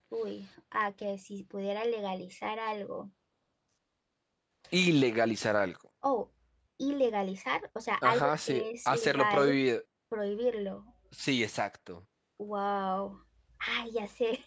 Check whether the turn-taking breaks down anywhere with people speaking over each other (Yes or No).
Yes